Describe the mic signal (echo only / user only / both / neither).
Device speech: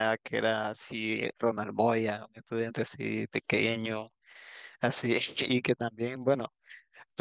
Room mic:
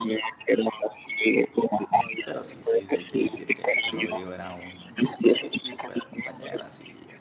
both